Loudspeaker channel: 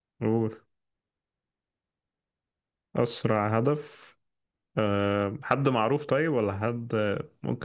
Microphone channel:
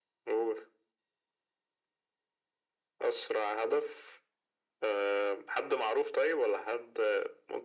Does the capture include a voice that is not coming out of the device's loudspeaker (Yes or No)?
No